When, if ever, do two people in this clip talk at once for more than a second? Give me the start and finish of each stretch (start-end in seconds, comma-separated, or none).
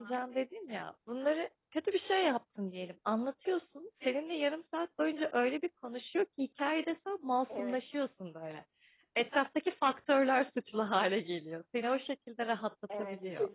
none